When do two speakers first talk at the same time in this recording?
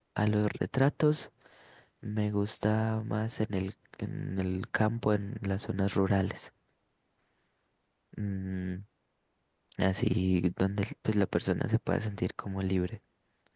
none

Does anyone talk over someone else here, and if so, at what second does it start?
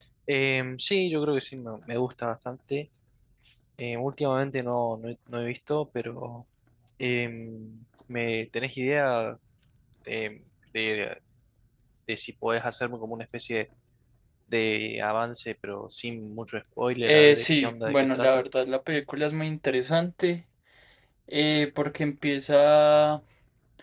17.0 s

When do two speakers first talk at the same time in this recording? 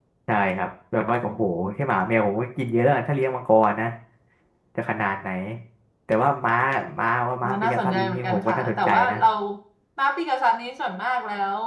7.4 s

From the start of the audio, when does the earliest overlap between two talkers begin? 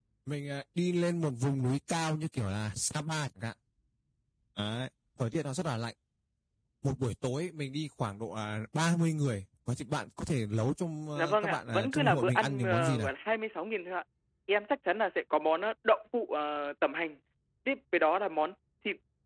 11.2 s

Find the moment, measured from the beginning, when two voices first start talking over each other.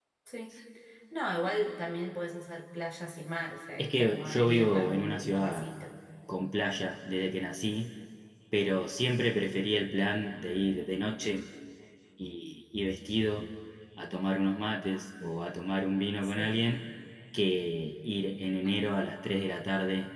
3.8 s

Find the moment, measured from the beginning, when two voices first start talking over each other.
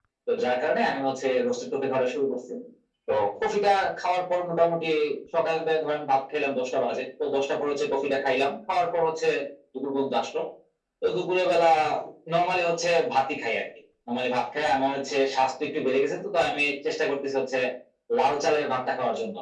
none

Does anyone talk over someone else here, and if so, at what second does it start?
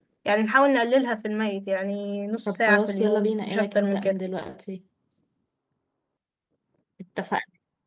2.5 s

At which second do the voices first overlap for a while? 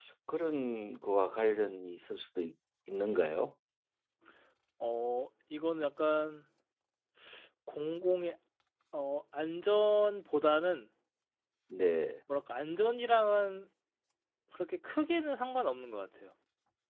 none

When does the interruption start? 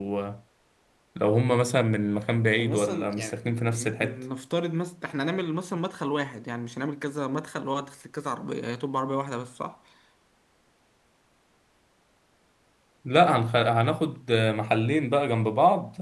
2.6 s

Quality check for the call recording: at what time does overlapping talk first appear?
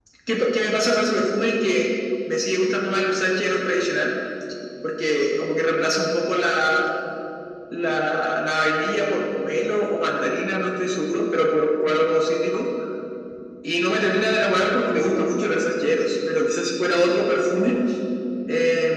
none

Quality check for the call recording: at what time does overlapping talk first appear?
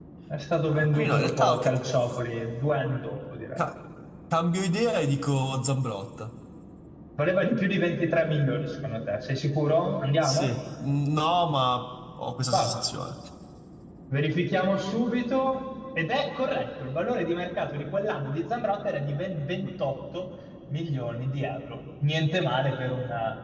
0.6 s

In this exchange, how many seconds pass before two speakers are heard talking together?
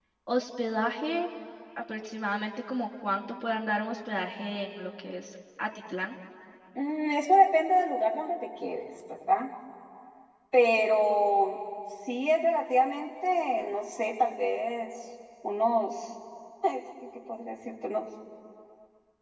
none

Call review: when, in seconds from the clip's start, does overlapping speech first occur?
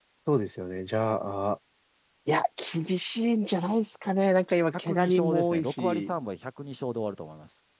4.9 s

